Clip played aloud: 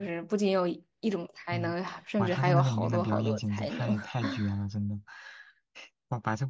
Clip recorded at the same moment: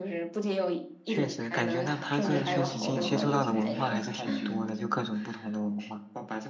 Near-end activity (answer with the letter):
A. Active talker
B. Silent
A